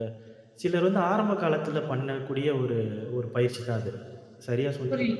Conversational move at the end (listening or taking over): taking over